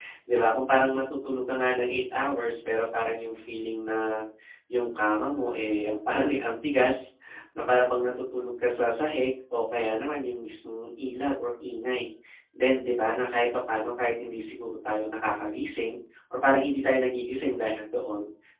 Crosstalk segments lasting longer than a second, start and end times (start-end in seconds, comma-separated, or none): none